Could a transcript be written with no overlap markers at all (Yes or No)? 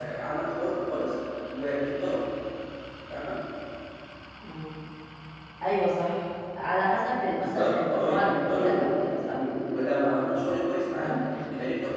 No